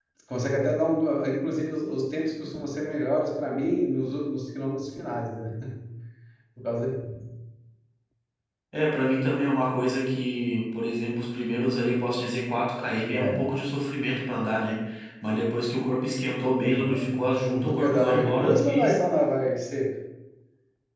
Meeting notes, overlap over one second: present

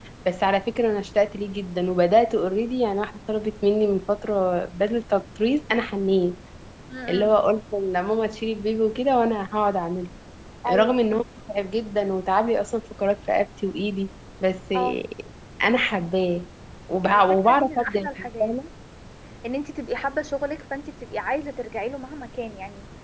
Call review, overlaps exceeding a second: present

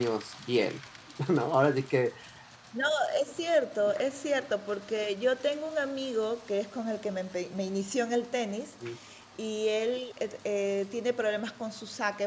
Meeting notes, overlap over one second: none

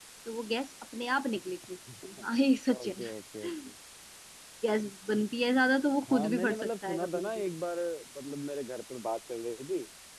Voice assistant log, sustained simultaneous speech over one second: present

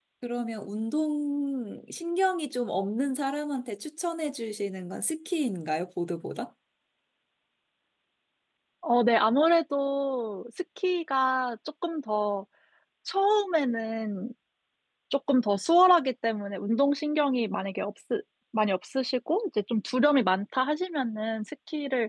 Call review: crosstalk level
none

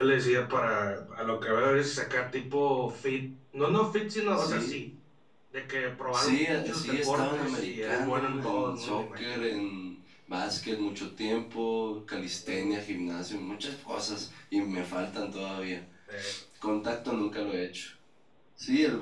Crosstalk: present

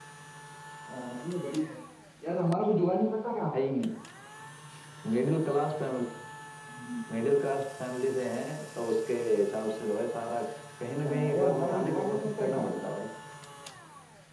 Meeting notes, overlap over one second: present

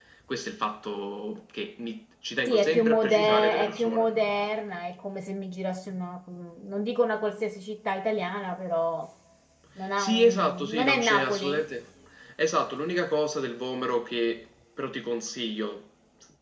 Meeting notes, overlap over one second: present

